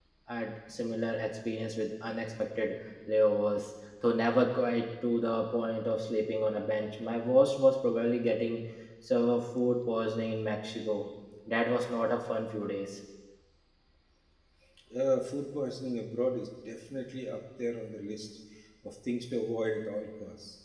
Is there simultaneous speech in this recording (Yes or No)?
No